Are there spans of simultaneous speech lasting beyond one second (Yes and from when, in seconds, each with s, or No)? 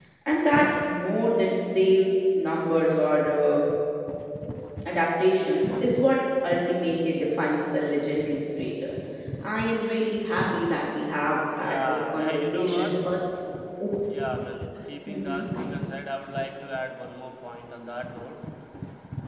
Yes, from 11.5 s